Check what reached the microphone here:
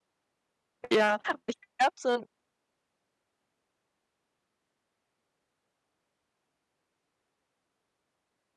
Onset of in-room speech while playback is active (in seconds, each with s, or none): 0.9 s